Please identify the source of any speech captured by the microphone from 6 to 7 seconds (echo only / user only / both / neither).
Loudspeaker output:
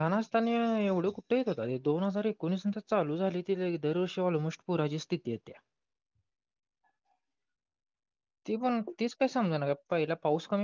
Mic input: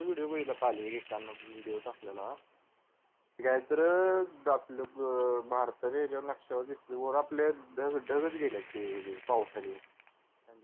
user only